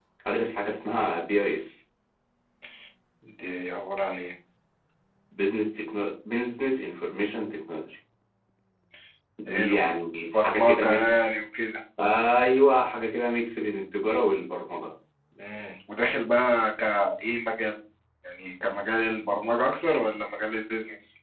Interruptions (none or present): present